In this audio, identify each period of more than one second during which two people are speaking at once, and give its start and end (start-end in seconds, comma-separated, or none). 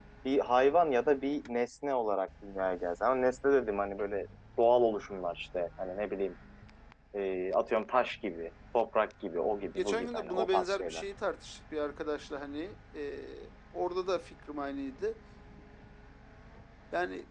9.8-11.0